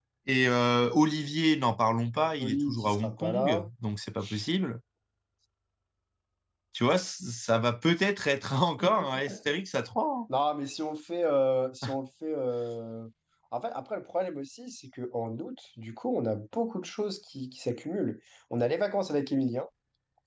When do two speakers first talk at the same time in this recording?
2.2 s

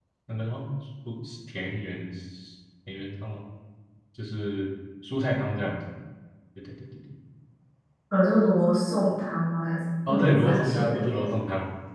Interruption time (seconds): 10.1 s

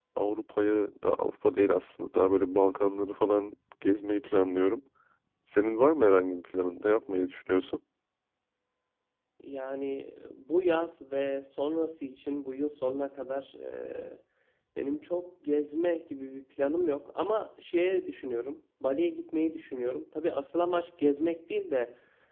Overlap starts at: none

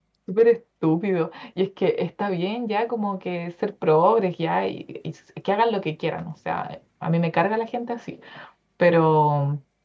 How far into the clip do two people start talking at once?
none

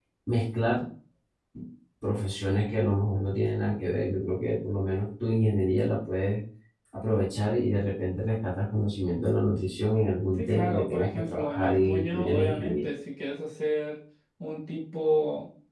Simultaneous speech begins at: 10.4 s

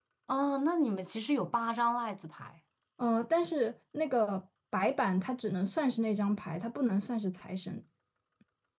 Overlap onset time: none

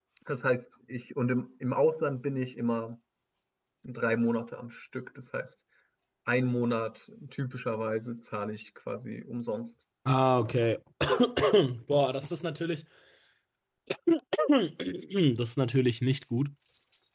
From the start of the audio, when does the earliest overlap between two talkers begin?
none

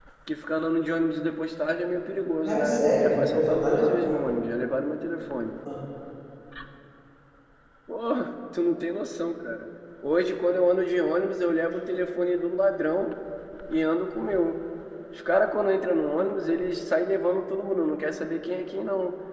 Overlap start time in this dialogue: 2.5 s

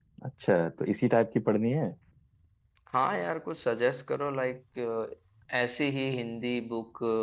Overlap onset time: none

